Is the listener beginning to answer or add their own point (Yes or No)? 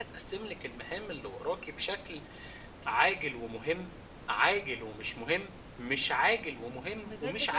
Yes